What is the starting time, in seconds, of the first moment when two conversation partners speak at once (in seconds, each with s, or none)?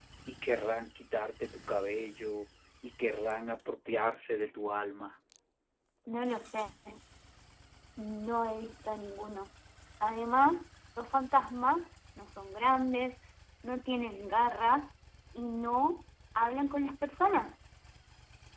none